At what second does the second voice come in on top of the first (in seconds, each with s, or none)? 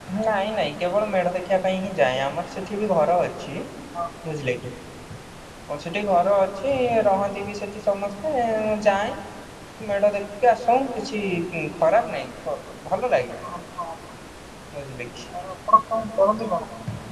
none